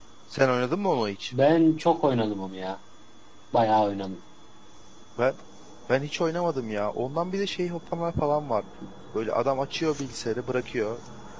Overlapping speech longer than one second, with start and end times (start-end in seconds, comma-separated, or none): none